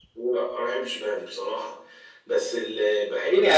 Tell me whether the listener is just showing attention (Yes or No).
No